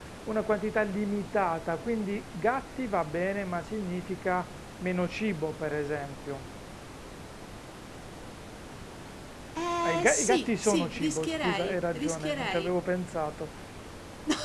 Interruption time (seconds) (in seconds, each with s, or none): 9.8 s